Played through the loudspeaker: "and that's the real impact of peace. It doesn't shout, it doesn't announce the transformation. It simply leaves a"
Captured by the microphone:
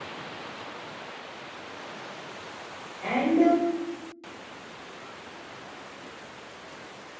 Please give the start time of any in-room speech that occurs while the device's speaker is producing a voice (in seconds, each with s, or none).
3.0 s